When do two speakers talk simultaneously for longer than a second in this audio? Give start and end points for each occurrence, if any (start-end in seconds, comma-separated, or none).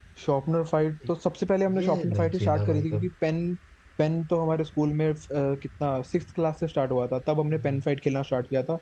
1.8-3.1